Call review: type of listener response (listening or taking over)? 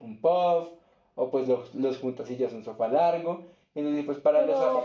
taking over